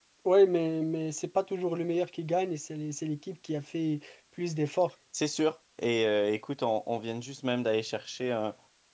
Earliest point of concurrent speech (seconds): none

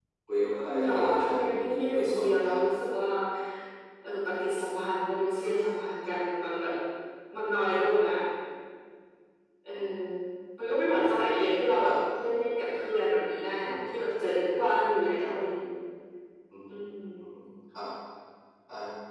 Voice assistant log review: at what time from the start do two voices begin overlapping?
0.6 s

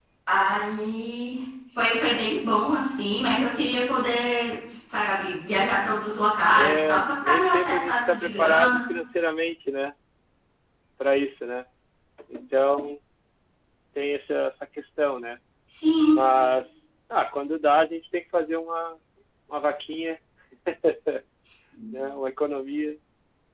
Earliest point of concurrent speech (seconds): 6.5 s

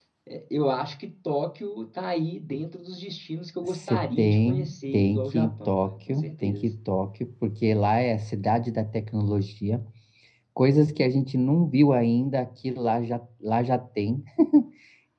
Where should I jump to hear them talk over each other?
3.6 s

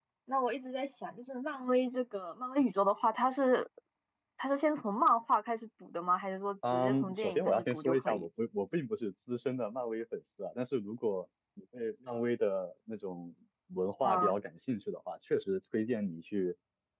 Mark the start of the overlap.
6.7 s

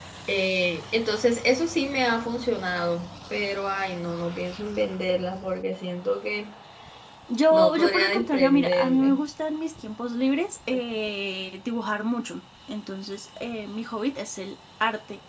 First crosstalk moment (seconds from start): 7.5 s

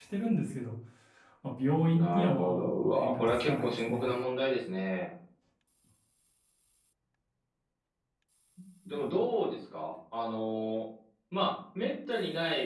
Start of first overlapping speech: 1.9 s

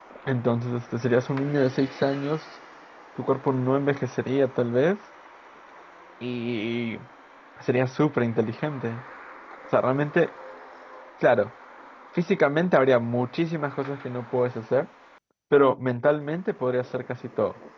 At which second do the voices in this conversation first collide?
none

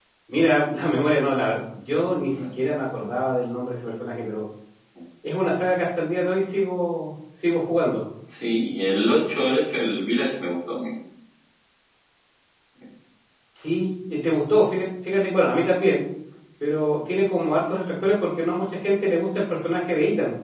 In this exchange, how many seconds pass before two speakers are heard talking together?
none

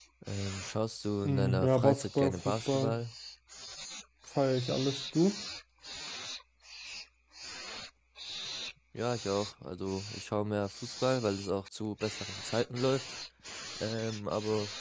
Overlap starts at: 1.2 s

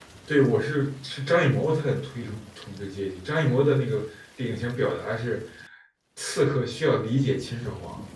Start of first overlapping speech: none

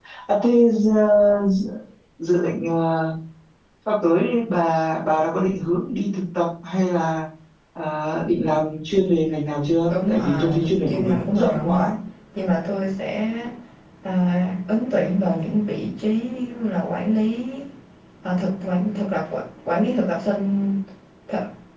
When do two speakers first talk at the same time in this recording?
9.9 s

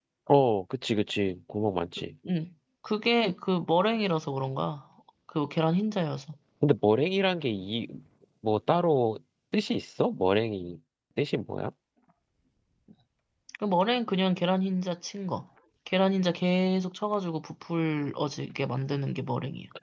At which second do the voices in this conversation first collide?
none

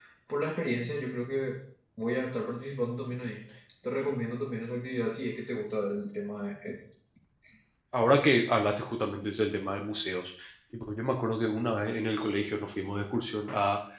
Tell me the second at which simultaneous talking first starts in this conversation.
none

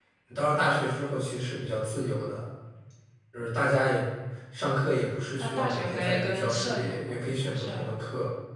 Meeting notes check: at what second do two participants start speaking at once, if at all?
5.4 s

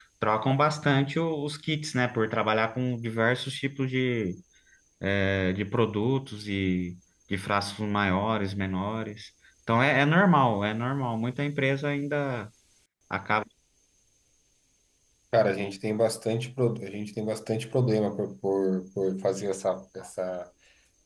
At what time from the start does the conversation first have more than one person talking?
none

